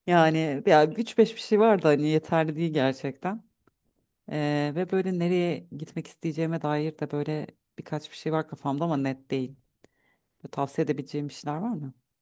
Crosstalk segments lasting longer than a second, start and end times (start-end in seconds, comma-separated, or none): none